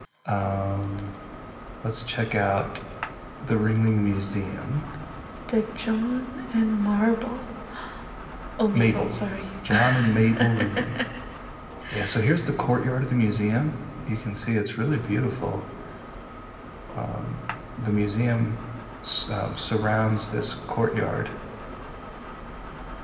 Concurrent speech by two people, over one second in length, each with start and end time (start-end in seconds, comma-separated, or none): 9.7-11.0